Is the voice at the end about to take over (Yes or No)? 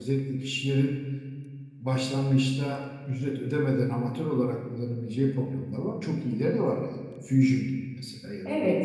Yes